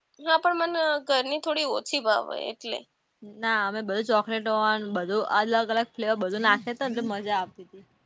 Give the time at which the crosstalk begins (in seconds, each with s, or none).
none